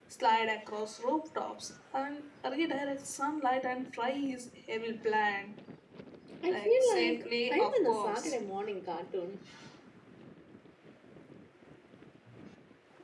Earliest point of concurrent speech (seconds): 6.5 s

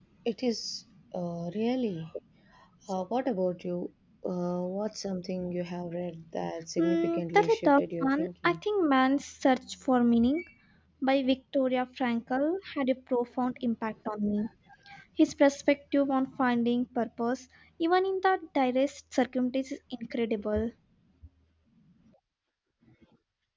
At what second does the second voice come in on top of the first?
6.8 s

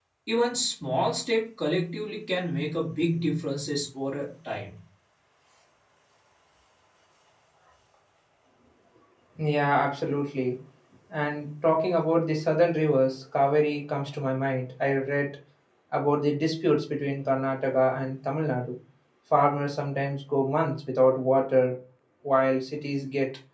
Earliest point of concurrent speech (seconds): none

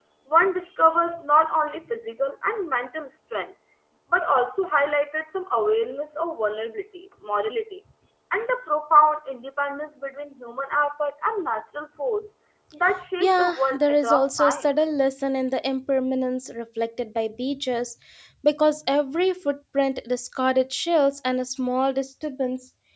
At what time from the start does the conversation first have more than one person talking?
13.2 s

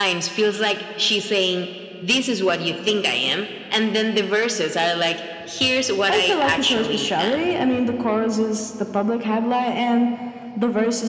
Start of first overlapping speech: 6.1 s

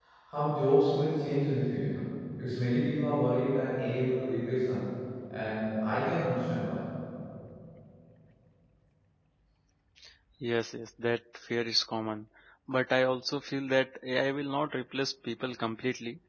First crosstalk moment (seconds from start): none

